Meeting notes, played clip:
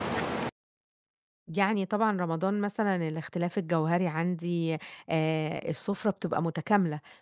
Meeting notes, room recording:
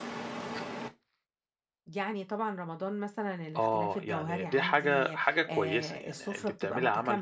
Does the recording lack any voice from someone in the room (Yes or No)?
No